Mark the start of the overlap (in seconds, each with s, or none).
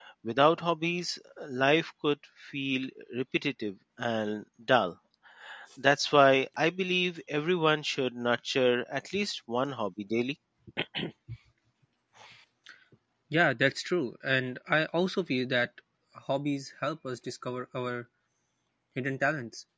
none